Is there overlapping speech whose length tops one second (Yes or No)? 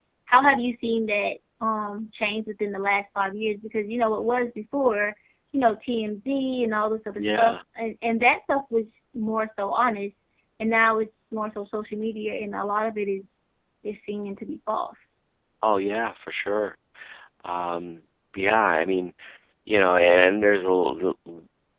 No